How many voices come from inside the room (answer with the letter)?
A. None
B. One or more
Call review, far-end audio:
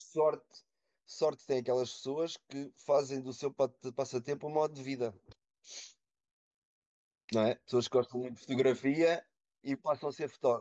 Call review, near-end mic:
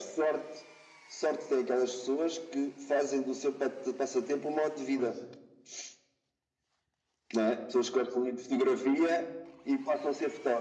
B